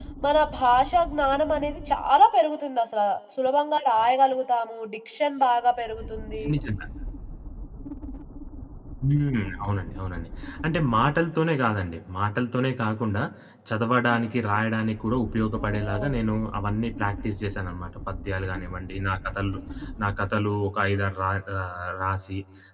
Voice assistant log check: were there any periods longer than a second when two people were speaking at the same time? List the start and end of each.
none

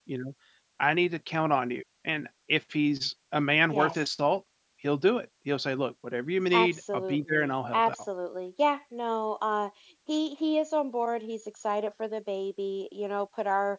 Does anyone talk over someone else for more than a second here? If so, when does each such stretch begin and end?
6.5-8.0

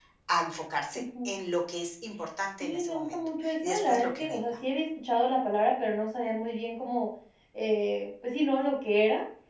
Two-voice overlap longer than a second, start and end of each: 2.6-4.5

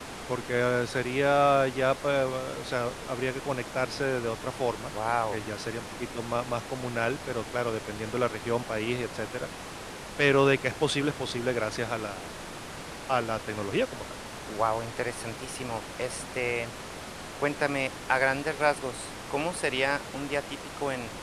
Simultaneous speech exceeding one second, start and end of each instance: none

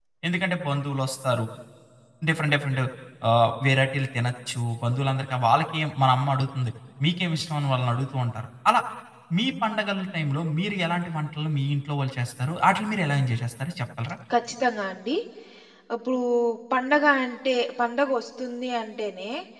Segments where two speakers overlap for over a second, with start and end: none

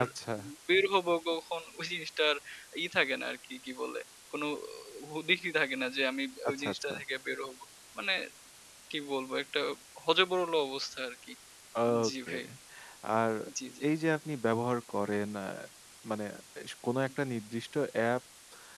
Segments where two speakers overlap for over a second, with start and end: none

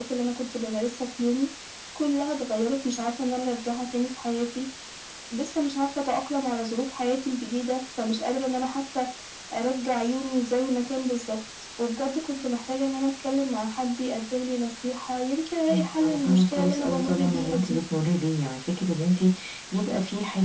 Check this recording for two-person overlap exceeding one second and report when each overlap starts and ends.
15.7-17.8

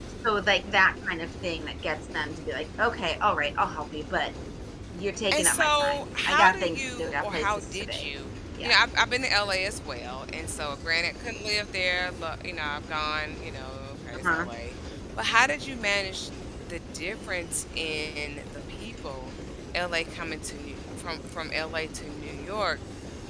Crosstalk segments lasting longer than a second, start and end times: 5.3-8.0

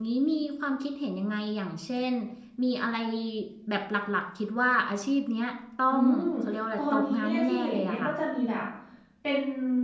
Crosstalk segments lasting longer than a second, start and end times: 6.8-8.1

